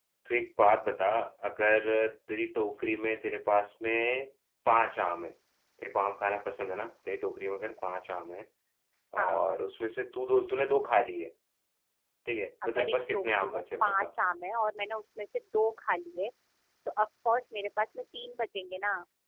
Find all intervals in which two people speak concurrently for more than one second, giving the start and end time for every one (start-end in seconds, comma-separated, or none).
12.6-14.1